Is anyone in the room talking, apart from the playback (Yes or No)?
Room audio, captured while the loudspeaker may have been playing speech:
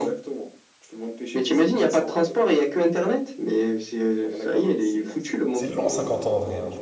Yes